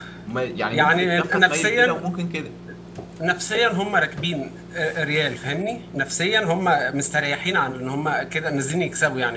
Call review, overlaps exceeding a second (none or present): present